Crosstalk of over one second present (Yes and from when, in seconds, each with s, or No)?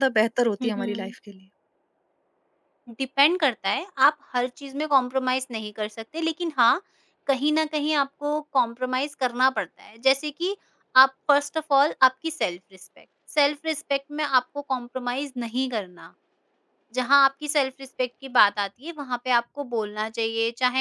No